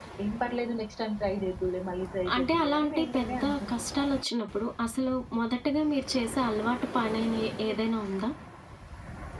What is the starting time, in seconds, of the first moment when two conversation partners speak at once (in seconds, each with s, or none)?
2.2 s